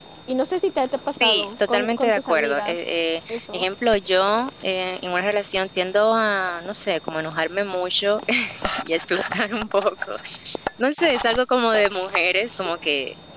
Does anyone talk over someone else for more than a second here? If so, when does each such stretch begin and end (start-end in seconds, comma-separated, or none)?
1.2-2.8